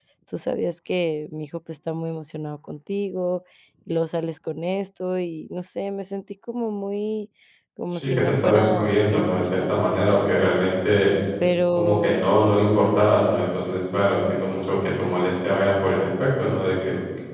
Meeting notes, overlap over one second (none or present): present